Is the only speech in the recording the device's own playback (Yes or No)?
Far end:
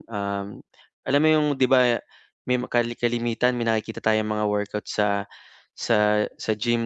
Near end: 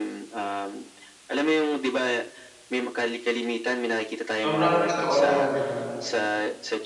No